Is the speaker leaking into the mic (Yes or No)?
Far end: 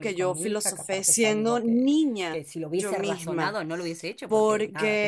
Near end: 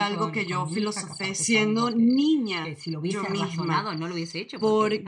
Yes